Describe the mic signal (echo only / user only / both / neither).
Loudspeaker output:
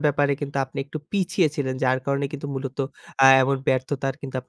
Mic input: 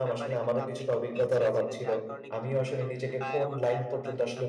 both